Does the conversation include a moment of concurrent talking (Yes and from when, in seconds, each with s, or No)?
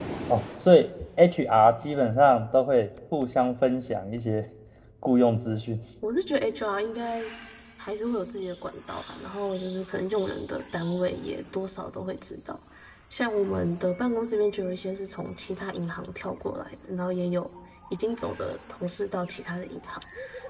No